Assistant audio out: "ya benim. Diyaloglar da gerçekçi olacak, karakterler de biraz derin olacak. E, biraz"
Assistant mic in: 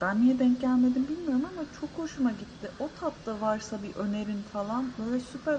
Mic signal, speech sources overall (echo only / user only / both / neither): user only